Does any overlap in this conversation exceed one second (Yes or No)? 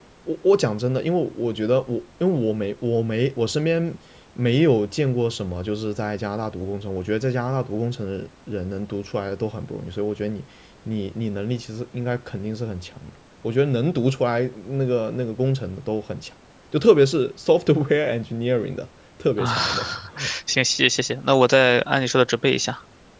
No